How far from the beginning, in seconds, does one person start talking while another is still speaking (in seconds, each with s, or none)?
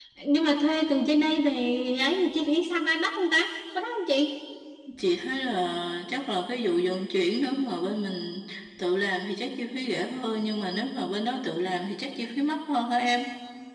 none